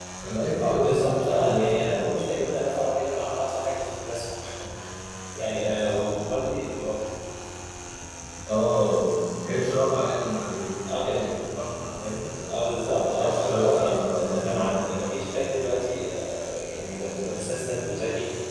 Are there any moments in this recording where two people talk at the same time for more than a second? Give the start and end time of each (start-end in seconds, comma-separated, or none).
0.6-2.2, 13.2-14.8